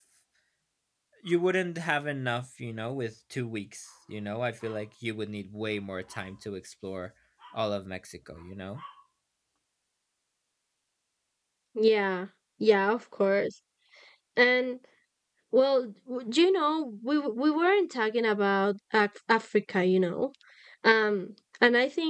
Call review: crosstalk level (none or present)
none